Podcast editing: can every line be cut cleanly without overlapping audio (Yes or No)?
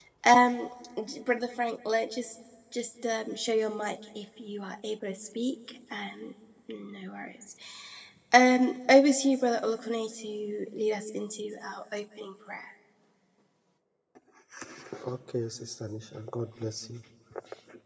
Yes